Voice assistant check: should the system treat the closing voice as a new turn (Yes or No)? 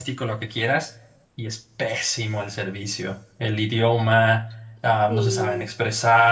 No